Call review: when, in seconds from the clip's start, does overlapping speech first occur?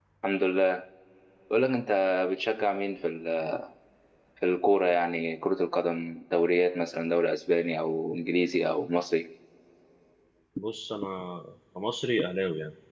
none

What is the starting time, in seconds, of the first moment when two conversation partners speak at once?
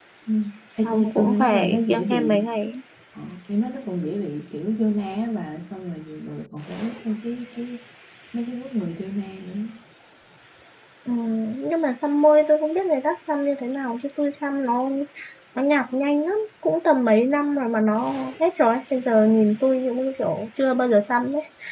0.8 s

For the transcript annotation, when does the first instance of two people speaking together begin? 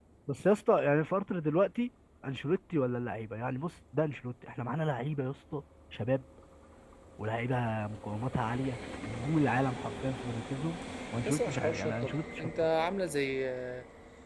11.2 s

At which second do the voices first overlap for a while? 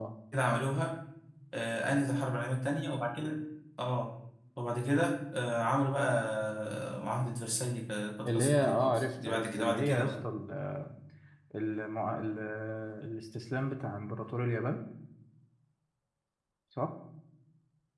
8.2 s

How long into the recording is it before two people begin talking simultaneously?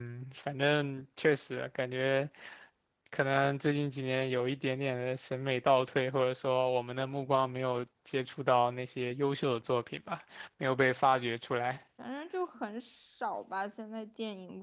none

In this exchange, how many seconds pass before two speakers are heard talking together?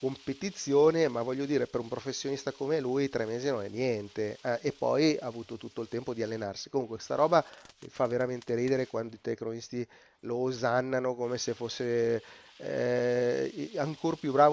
none

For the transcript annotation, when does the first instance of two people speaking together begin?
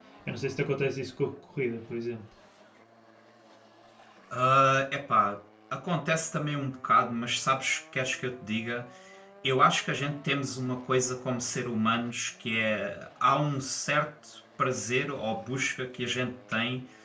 none

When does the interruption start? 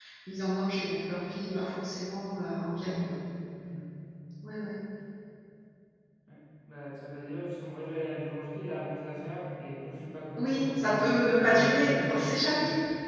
10.4 s

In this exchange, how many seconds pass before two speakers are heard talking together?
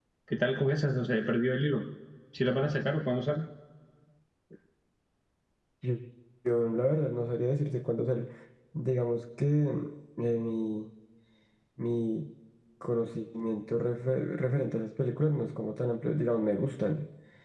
none

